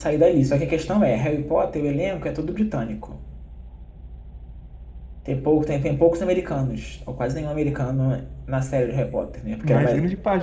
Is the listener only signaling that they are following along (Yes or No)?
No